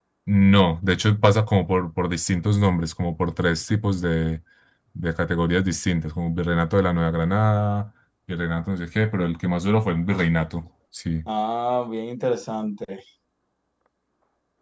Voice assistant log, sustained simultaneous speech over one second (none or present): none